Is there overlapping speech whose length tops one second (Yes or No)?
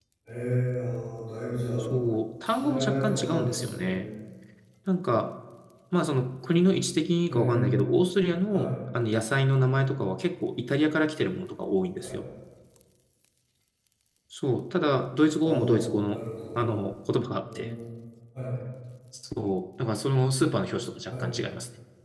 Yes